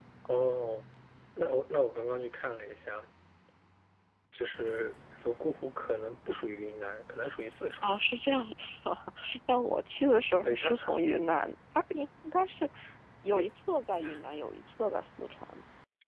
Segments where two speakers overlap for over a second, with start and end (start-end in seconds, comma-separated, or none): none